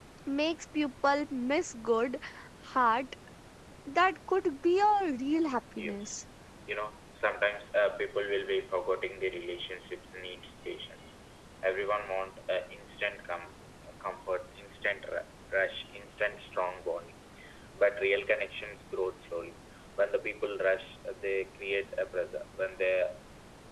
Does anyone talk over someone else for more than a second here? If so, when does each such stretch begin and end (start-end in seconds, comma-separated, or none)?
none